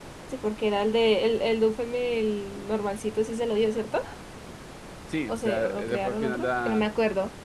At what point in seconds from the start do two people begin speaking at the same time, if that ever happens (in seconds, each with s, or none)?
5.3 s